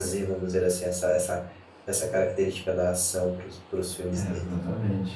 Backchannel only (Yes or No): No